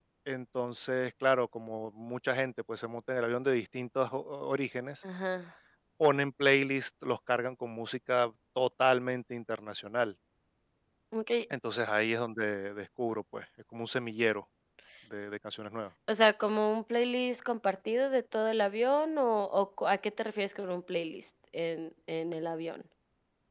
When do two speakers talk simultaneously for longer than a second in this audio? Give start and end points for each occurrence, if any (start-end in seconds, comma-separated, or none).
none